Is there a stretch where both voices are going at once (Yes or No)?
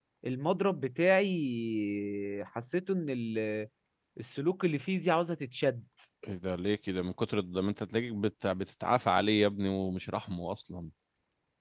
No